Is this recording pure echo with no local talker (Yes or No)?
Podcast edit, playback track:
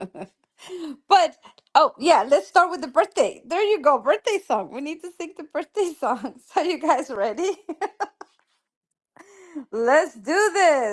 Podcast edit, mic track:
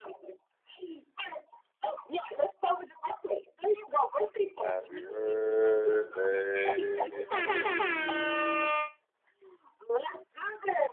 No